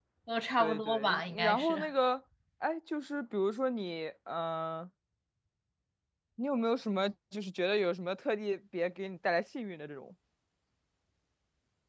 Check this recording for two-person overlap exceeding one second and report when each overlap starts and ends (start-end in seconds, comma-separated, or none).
0.6-1.8